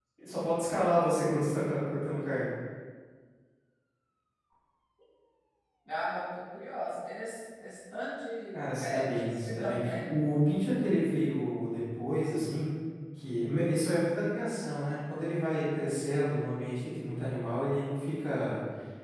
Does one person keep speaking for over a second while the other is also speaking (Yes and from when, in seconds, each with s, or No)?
Yes, from 8.5 s